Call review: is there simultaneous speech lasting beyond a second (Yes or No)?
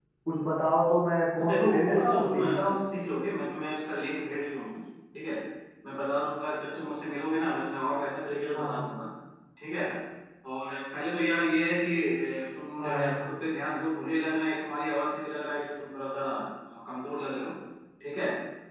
Yes